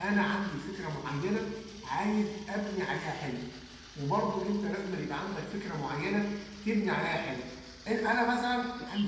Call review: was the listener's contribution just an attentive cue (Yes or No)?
No